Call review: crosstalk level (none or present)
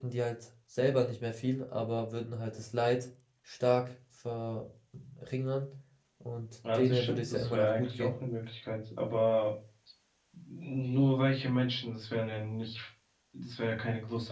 present